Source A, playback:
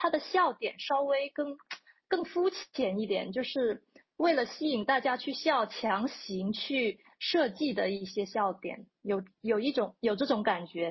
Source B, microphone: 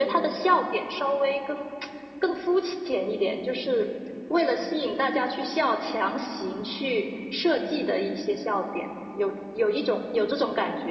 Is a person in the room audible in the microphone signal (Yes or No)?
No